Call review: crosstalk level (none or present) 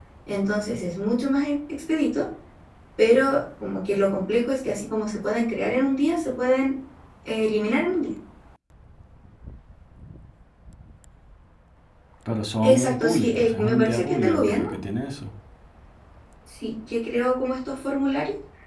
present